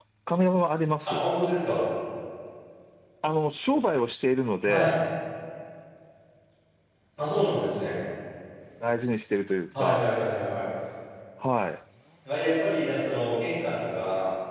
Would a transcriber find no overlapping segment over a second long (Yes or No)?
Yes